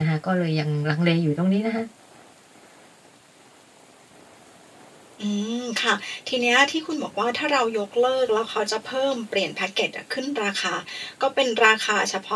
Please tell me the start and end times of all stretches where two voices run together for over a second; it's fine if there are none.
none

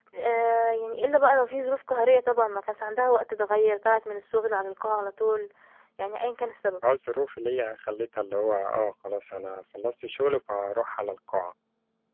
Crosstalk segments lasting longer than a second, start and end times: none

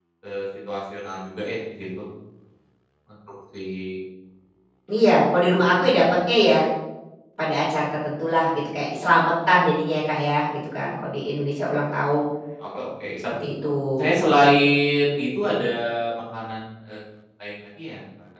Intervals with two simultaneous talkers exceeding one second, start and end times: none

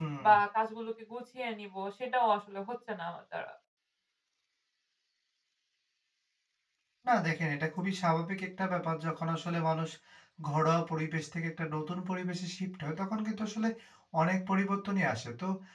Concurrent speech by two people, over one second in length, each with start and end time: none

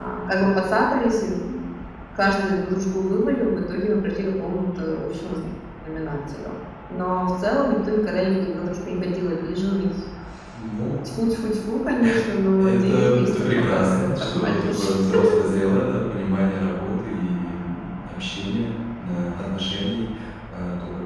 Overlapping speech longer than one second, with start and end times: 12.6-14.8

